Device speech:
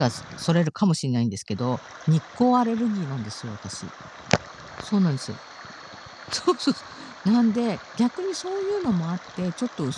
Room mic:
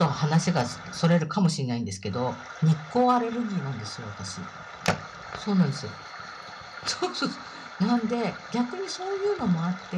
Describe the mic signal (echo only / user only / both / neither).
echo only